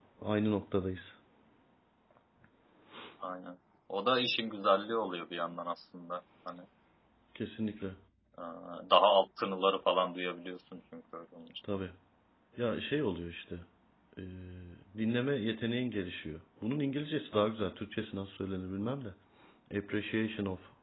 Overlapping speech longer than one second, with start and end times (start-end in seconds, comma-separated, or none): none